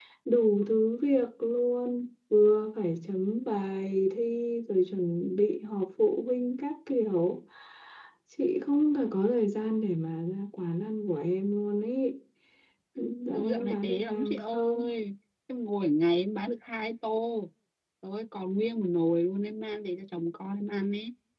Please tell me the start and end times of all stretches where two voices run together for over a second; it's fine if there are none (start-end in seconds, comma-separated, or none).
13.3-14.8